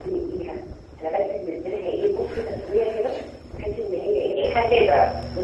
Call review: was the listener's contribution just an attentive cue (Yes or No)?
Yes